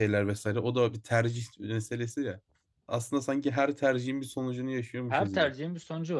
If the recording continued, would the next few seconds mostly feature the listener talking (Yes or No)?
Yes